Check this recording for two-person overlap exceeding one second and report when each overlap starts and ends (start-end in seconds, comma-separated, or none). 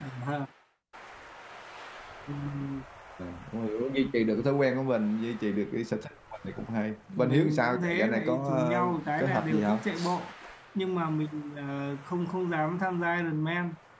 7.1-9.8